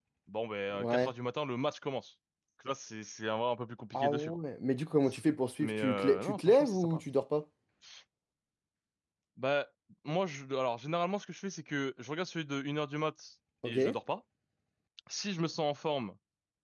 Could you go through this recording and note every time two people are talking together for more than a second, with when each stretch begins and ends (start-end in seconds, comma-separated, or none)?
5.6-7.0